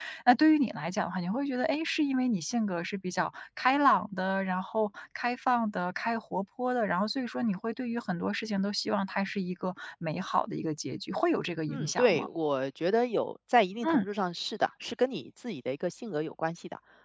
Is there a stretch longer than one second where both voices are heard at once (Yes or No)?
No